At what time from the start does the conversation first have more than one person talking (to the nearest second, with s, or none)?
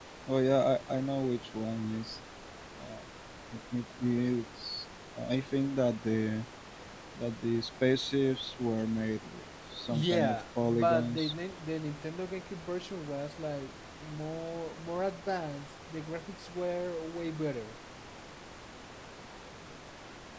10 s